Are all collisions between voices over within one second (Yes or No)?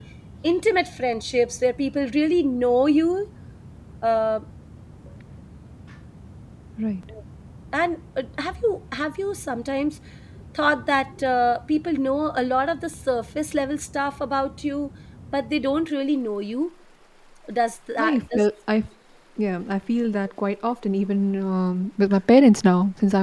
Yes